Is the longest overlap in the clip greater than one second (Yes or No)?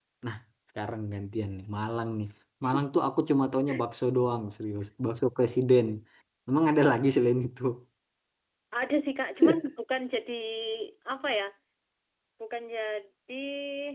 No